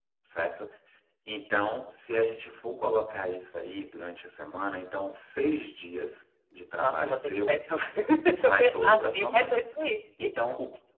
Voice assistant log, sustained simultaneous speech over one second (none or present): present